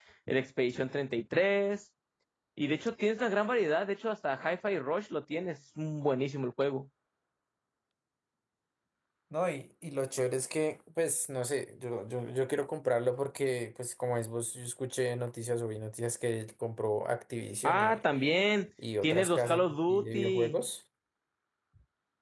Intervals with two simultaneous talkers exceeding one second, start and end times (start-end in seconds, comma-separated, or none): 19.0-20.6